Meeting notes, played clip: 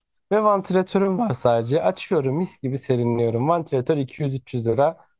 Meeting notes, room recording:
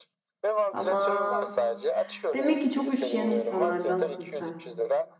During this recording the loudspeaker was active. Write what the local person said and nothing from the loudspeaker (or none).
Ama demek ki çok üşüyen insanlardansın sen.